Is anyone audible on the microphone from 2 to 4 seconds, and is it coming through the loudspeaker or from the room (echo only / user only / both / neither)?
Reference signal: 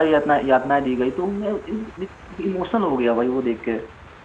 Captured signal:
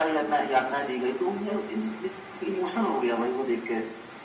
echo only